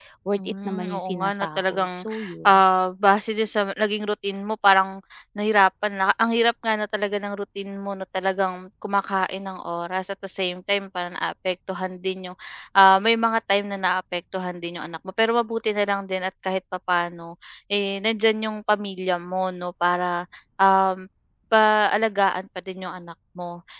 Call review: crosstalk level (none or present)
present